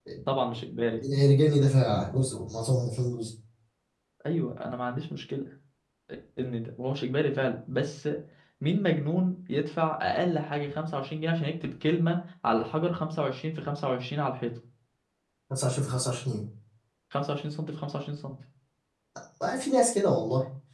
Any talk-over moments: No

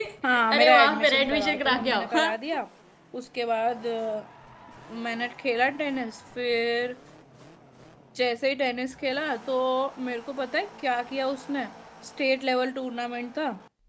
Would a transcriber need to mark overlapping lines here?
Yes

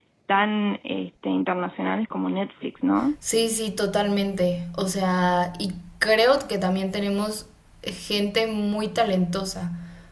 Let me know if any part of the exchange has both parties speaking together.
No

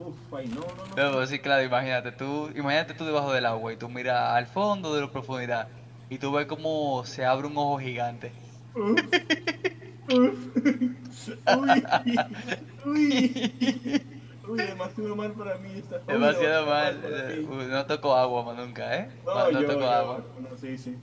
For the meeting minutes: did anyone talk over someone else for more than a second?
Yes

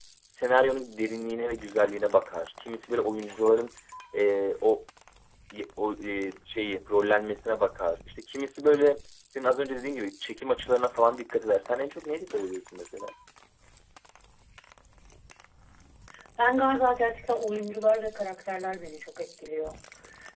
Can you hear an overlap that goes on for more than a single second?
No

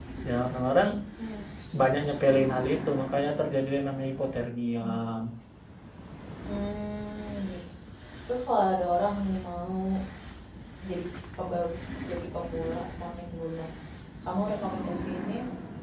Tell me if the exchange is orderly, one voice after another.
Yes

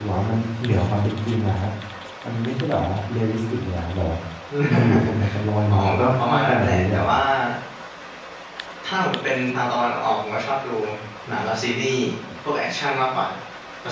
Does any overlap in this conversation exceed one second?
Yes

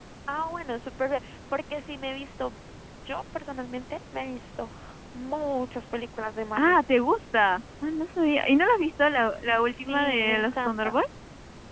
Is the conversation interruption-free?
No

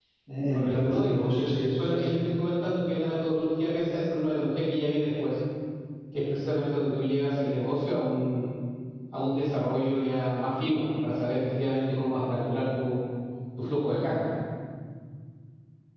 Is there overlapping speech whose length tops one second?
Yes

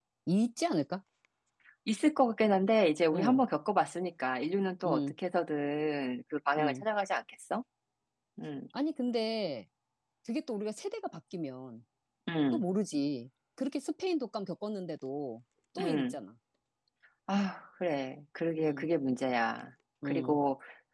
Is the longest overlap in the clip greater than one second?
No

